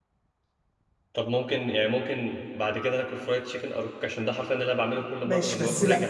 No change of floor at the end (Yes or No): No